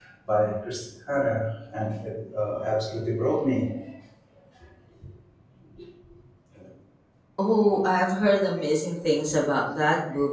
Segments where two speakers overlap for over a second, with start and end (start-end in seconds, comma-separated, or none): none